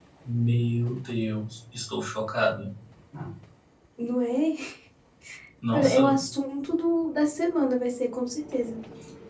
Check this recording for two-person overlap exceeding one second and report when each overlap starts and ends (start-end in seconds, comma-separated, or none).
none